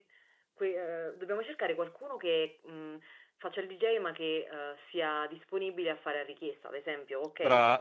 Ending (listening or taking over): taking over